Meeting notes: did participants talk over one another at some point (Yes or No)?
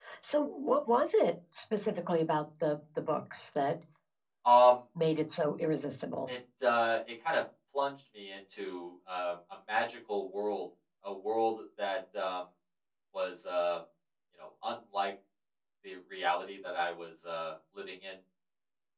No